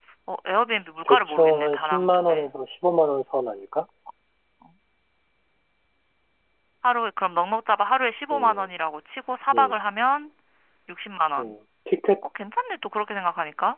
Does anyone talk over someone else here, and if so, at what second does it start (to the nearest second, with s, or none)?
1 s